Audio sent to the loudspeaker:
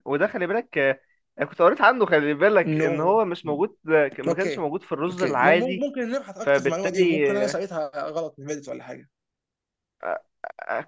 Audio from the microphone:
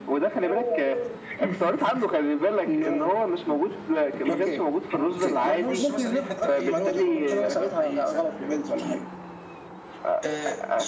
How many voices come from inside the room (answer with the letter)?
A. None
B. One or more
B